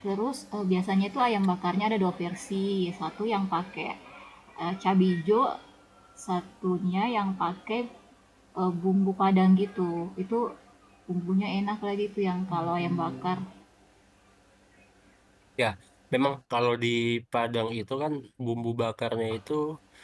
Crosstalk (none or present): none